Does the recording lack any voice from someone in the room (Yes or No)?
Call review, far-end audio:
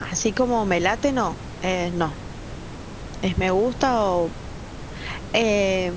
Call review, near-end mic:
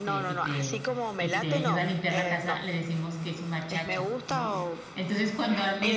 No